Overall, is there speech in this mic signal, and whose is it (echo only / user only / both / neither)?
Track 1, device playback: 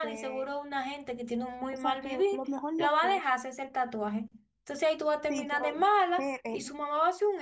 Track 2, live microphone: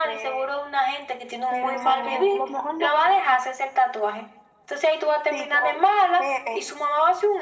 both